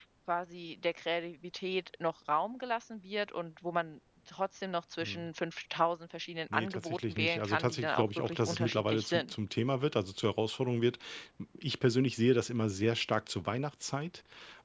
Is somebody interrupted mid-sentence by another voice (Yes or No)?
Yes